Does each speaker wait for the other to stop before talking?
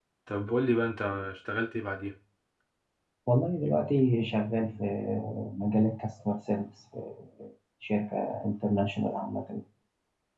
Yes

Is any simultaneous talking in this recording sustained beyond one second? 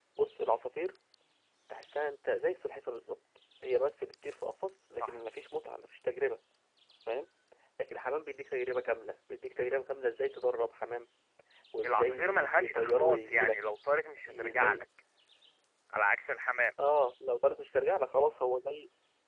Yes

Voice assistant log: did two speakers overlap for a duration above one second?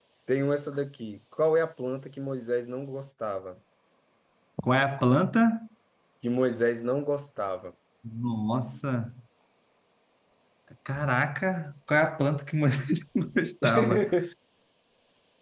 No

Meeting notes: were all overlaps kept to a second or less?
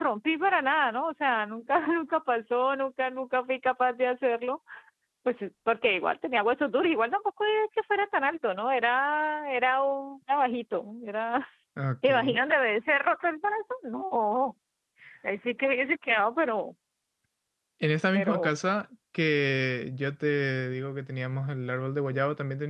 Yes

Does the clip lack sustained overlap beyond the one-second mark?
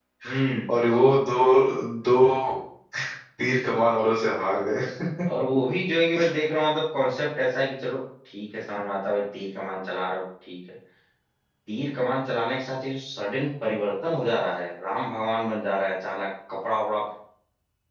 Yes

